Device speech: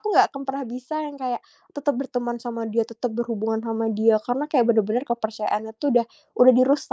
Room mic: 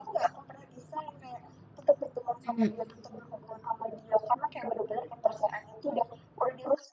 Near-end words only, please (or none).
Mhm.